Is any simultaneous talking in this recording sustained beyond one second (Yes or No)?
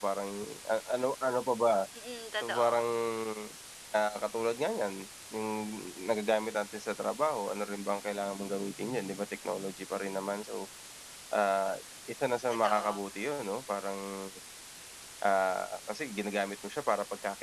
No